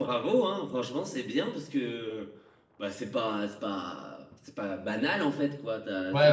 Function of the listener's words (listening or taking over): taking over